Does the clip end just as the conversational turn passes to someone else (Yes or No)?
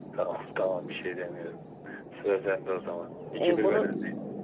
Yes